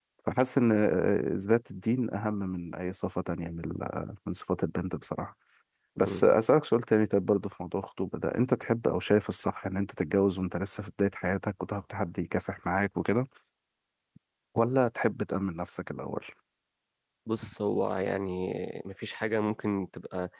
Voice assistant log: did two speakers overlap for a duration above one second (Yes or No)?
No